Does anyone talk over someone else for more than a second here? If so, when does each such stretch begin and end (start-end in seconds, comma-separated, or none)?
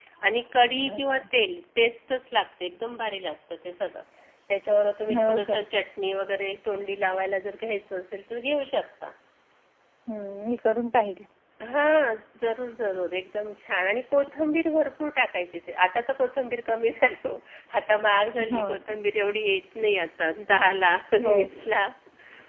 none